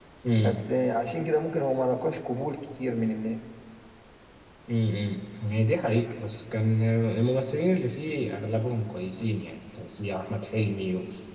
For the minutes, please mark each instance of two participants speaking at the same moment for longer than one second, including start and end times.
none

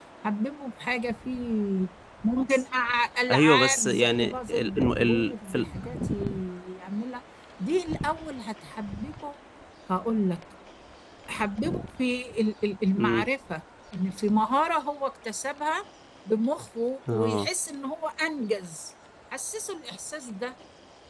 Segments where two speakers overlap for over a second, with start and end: 3.3-5.7

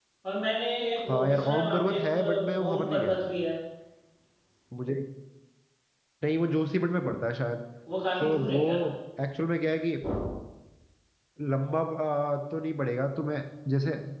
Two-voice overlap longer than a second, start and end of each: 1.1-3.2

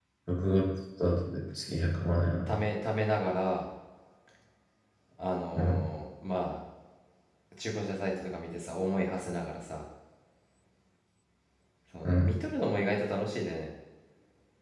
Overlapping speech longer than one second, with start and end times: none

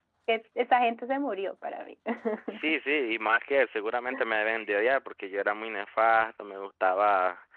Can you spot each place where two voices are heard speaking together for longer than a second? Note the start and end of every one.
none

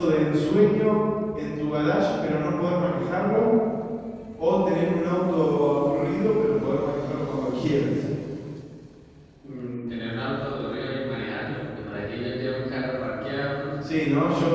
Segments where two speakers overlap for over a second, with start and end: none

